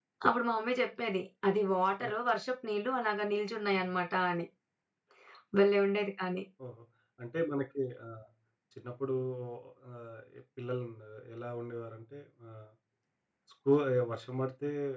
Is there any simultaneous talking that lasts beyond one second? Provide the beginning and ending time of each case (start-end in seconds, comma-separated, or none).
none